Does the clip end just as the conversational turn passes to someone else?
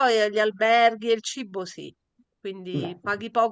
No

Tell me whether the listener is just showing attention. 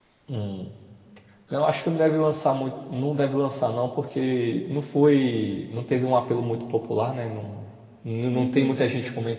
Yes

